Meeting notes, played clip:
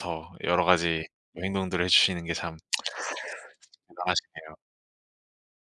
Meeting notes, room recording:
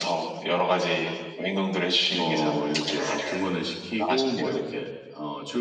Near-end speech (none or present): present